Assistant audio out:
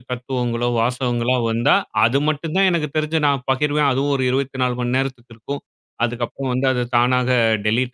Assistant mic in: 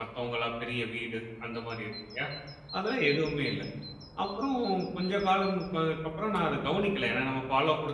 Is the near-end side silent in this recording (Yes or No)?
No